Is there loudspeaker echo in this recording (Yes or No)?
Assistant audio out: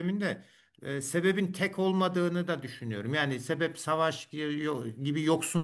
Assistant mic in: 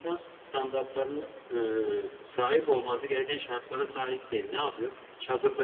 No